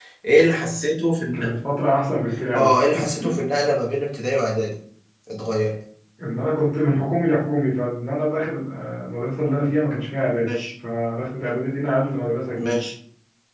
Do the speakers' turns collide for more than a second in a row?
No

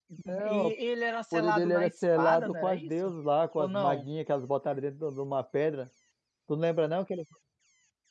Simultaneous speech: Yes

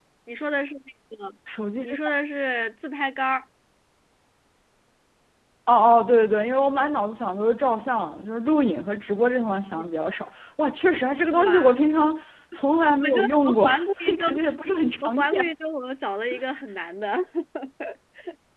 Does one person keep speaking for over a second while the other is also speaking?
Yes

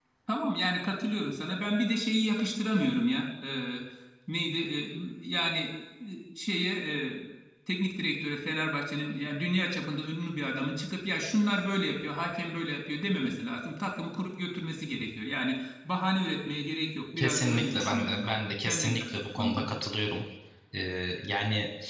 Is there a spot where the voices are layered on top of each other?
Yes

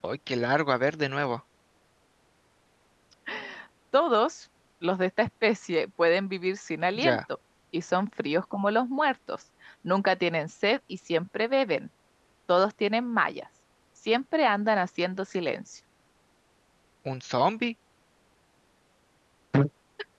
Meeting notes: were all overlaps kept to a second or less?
Yes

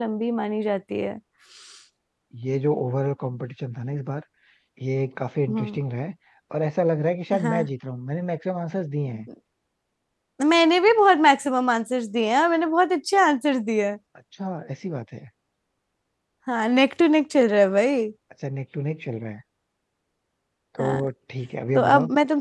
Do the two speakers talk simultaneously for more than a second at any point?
No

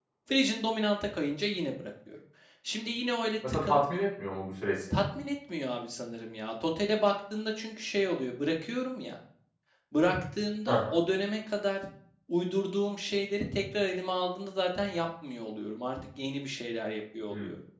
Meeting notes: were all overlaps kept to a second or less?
Yes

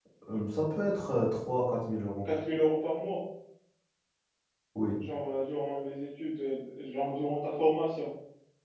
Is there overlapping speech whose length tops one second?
No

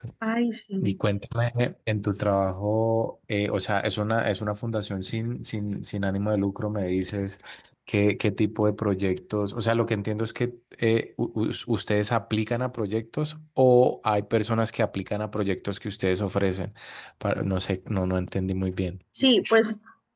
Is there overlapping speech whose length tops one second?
No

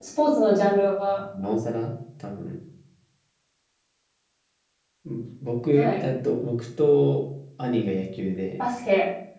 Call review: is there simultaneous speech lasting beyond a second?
No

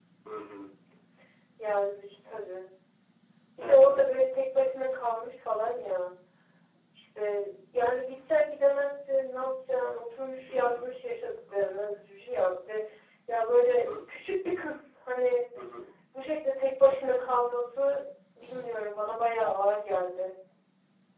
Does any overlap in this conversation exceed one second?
No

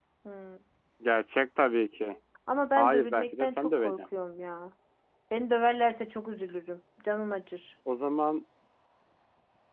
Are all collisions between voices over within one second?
No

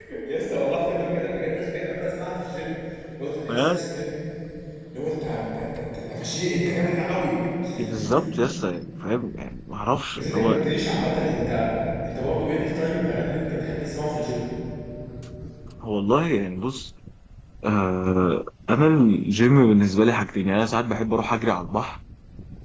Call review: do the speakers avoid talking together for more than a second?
Yes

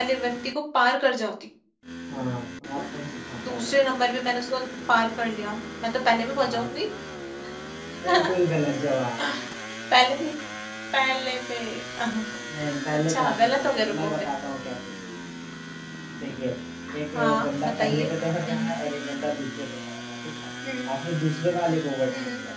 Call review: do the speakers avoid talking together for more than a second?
No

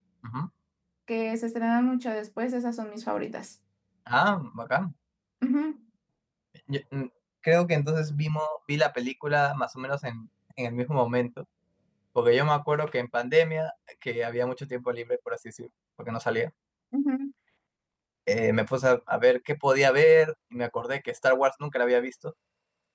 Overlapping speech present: No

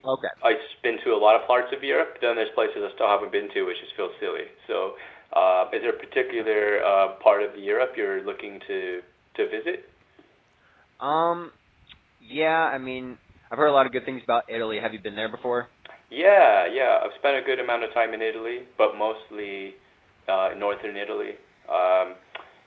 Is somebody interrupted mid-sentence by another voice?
No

